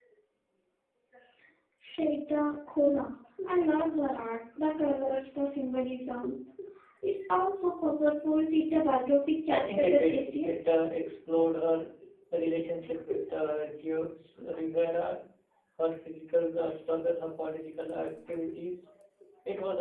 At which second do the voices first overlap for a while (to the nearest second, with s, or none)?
9 s